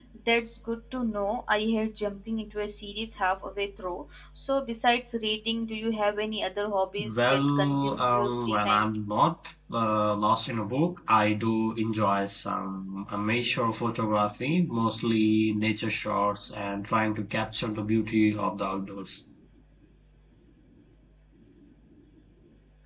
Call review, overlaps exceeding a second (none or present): present